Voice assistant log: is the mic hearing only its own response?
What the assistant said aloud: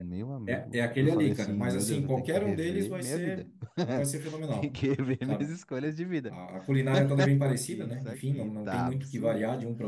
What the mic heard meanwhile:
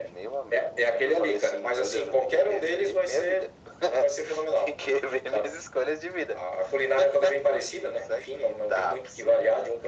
Yes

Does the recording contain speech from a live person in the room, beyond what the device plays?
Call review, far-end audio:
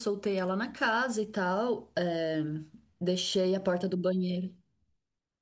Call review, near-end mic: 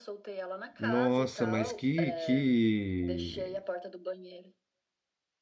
Yes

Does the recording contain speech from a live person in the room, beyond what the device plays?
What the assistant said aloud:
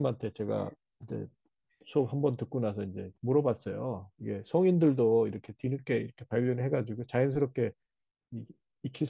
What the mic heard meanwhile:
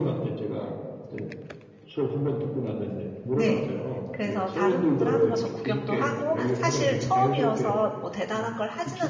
Yes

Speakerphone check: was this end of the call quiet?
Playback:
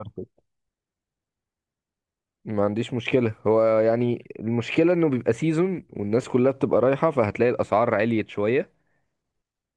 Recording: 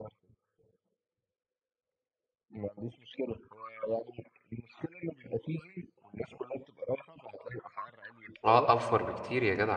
No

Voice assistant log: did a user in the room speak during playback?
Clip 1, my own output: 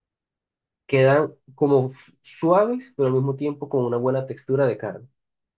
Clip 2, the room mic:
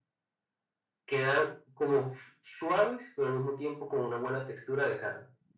No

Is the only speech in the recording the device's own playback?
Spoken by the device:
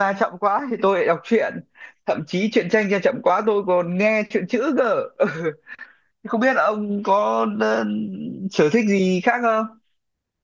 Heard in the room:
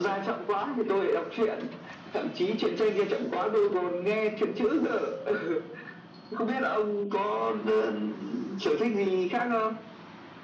Yes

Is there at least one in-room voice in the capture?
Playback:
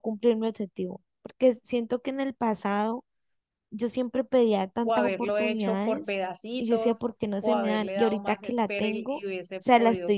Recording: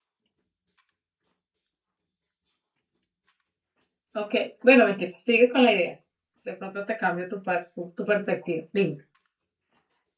Yes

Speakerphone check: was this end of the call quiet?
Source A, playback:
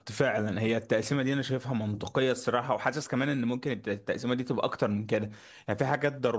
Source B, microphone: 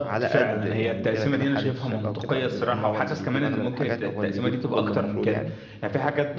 No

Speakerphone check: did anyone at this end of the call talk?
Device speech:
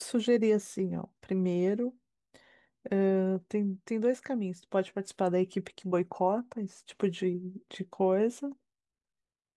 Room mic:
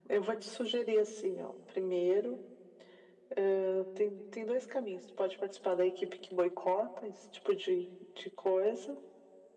No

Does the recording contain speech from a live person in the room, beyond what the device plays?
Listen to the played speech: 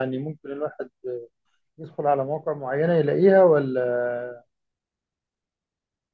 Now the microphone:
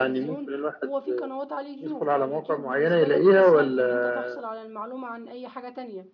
Yes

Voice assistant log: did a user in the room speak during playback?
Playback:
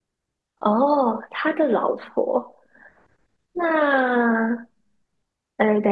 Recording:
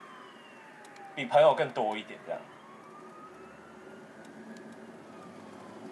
Yes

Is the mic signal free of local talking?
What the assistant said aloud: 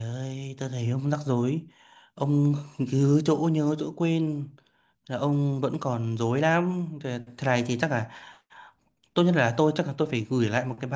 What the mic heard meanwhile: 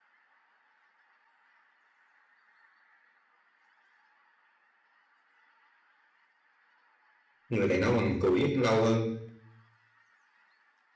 No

